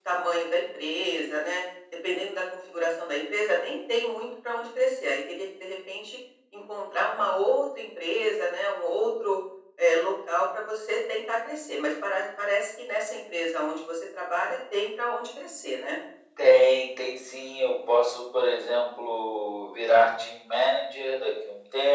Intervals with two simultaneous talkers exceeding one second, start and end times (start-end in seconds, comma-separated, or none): none